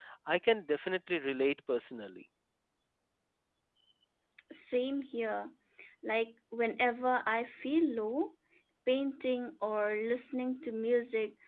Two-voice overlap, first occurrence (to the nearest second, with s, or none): none